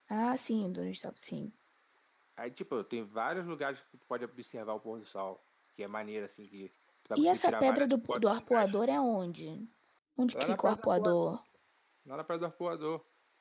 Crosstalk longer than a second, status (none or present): present